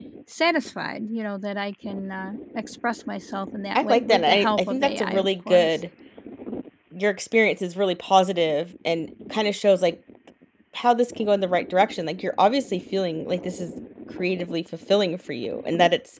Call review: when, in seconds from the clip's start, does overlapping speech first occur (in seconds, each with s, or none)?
3.8 s